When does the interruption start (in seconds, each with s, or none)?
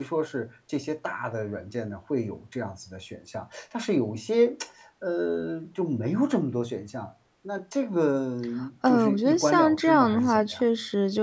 8.9 s